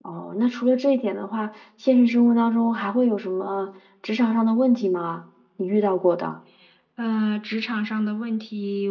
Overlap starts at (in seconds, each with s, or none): none